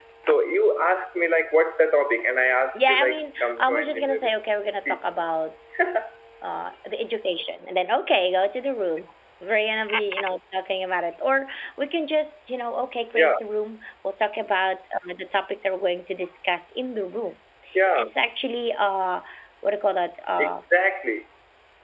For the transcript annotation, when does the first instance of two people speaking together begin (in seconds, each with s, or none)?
2.9 s